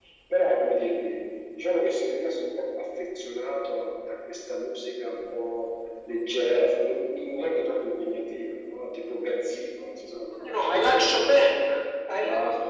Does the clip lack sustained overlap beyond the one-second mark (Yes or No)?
Yes